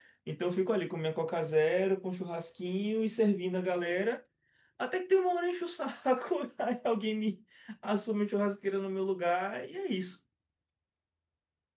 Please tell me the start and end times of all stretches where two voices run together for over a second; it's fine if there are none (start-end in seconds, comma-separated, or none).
none